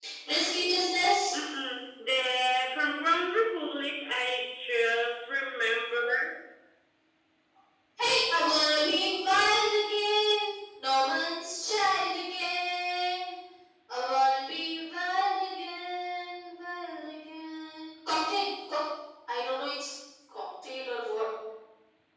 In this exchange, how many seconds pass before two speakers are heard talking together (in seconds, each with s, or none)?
none